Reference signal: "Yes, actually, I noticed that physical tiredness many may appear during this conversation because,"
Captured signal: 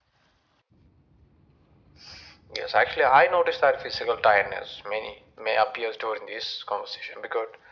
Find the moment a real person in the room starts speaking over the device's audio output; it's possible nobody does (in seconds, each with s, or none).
none